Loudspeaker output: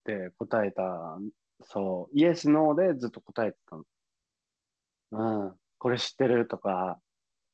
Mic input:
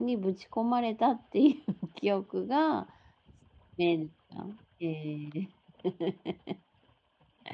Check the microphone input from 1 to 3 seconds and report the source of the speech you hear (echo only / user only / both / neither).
user only